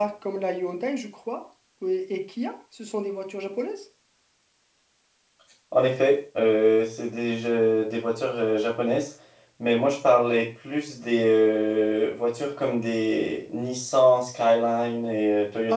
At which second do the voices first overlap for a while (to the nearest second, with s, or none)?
none